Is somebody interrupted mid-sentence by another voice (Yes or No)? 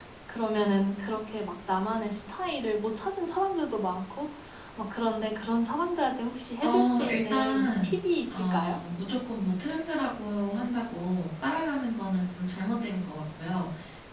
Yes